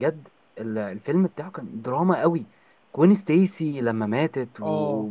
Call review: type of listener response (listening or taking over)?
listening